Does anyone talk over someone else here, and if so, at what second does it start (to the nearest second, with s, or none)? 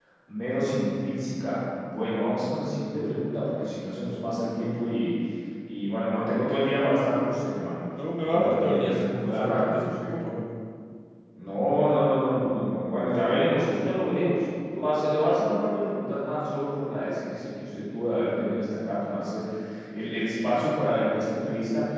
8 s